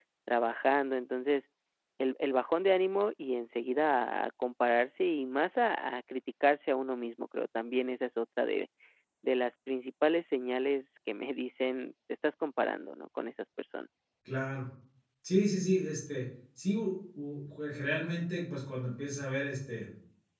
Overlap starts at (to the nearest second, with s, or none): none